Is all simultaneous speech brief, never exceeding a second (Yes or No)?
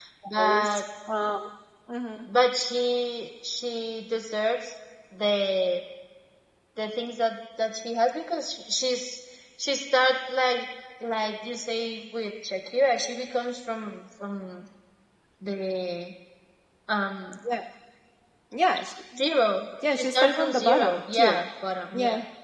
No